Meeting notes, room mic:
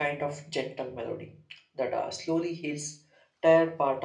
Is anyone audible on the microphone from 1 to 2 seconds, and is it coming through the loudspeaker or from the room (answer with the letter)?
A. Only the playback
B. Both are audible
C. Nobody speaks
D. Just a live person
D